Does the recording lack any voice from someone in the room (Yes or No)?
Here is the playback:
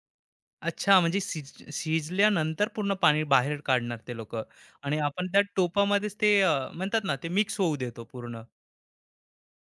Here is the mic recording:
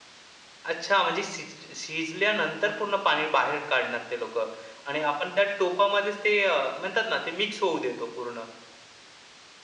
Yes